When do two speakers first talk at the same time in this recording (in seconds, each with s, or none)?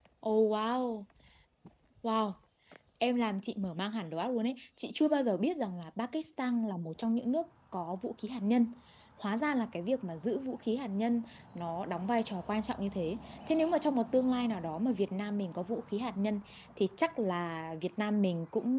none